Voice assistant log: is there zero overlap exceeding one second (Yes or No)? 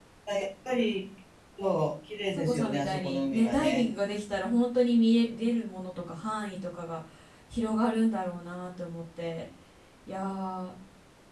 No